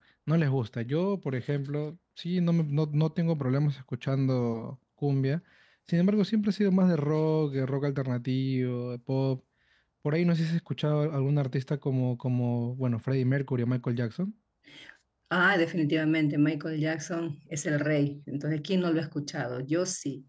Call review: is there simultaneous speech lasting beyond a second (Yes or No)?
No